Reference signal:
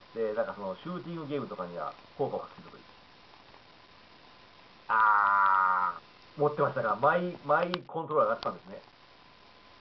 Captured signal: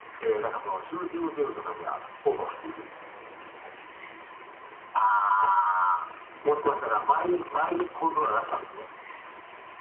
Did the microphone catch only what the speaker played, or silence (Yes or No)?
Yes